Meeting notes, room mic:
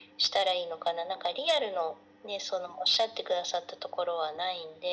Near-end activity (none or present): none